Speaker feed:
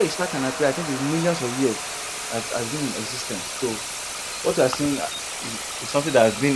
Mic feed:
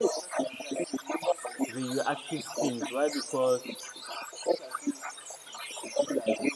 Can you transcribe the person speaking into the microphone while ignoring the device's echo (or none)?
radioactive things. Why? Because